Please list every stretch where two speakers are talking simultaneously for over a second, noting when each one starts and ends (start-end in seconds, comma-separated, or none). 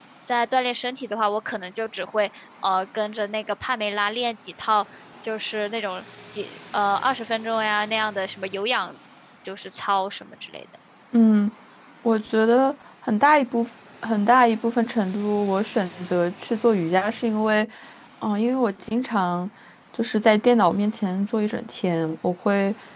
none